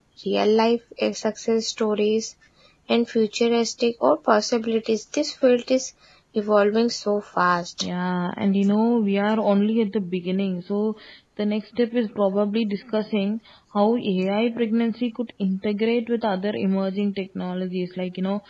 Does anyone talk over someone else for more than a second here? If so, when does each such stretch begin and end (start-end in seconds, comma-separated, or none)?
none